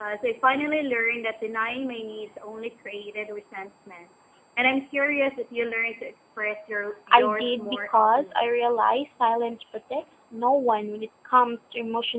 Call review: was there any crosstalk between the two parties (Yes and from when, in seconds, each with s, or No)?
Yes, from 7.1 s